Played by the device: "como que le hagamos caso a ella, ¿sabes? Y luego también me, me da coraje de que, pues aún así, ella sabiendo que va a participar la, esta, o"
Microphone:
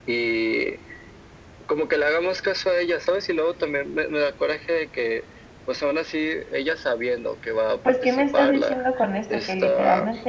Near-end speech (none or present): present